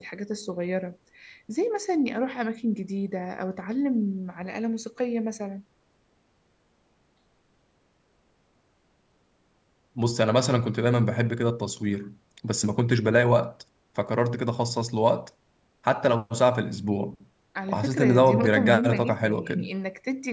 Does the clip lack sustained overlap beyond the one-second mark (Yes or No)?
No